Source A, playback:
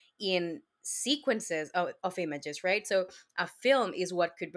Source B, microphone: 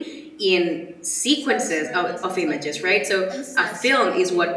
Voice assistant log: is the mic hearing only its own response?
No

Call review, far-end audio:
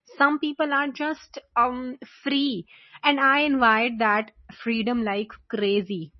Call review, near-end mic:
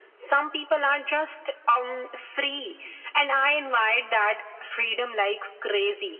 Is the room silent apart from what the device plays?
Yes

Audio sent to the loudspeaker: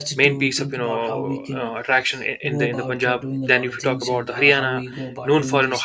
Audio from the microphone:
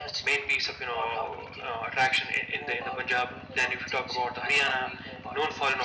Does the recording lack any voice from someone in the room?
Yes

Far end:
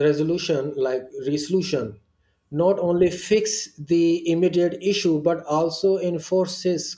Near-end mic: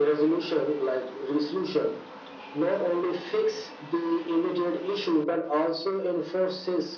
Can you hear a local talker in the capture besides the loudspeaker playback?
No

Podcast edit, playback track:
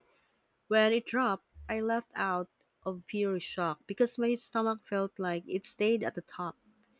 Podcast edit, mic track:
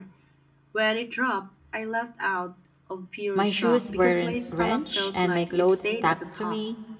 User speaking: Yes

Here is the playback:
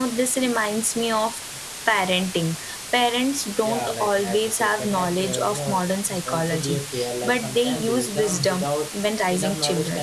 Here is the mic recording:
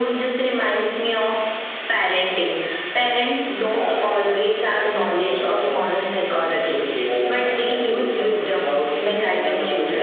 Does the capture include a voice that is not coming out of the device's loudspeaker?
No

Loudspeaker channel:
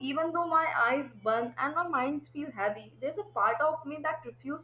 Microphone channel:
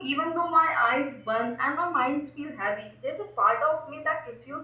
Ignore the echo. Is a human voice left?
No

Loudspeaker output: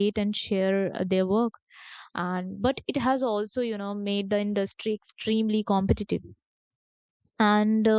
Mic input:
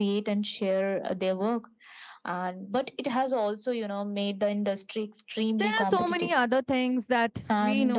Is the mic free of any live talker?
No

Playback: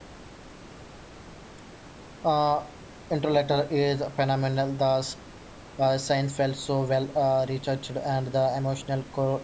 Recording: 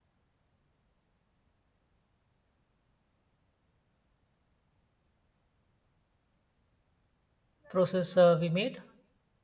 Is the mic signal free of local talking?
No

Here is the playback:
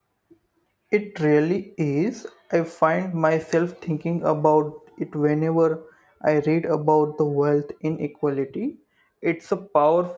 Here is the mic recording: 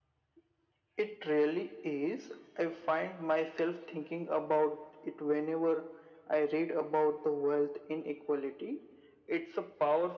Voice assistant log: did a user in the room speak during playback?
No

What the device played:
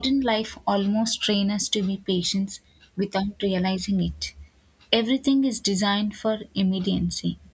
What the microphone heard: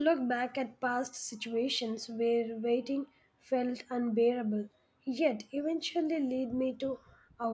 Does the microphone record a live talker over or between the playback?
Yes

